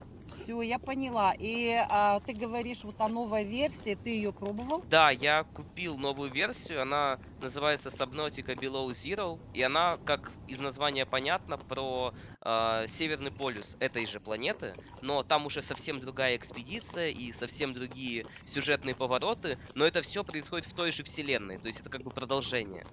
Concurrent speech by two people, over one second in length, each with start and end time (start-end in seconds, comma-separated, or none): none